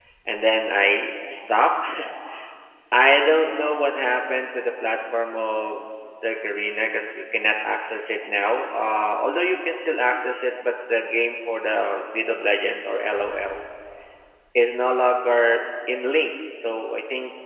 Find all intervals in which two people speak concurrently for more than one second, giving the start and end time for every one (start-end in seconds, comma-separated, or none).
none